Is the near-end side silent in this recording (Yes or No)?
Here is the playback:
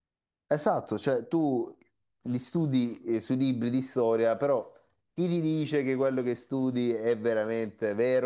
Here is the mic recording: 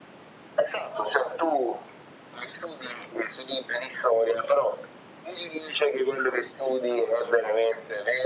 Yes